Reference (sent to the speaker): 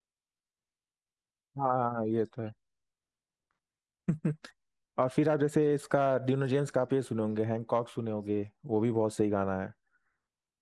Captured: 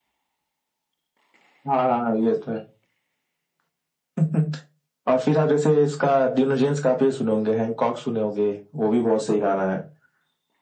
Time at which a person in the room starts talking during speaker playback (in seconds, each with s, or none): none